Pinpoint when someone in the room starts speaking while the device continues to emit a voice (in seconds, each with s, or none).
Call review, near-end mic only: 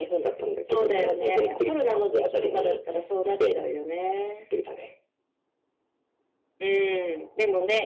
none